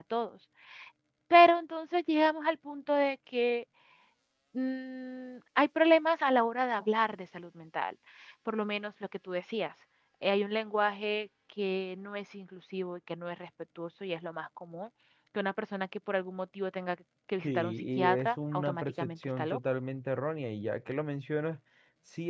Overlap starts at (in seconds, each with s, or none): 17.4 s